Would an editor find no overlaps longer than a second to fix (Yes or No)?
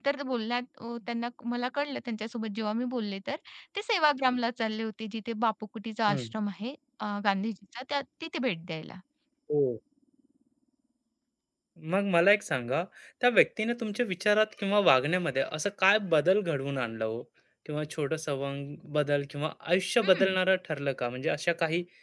Yes